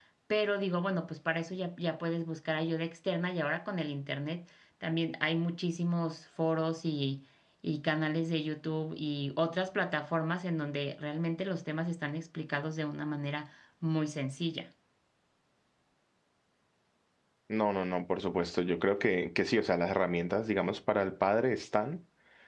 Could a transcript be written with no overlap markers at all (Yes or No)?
Yes